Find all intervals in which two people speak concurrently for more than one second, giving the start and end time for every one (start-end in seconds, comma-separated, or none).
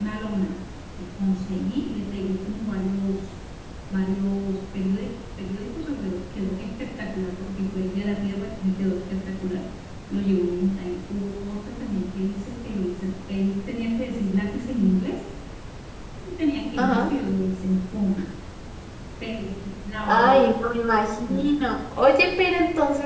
none